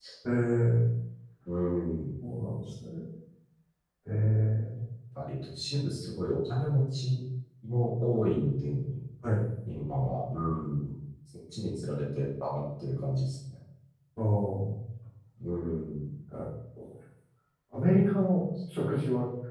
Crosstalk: none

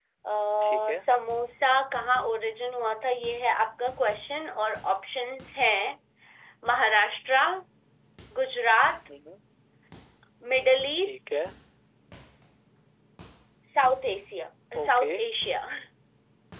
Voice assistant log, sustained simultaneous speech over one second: none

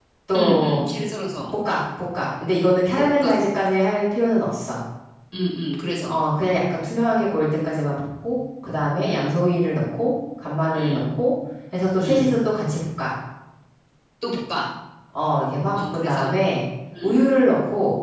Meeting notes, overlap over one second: none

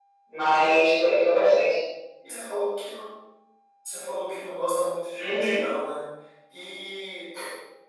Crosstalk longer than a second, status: none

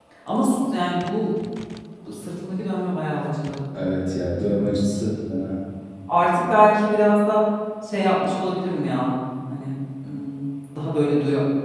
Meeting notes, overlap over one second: none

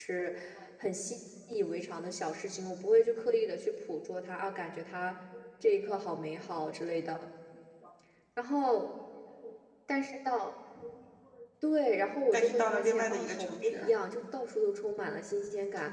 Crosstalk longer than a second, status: present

